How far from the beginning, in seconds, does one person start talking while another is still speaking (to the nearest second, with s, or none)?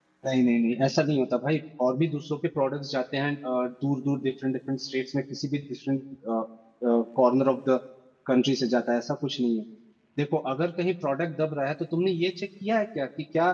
none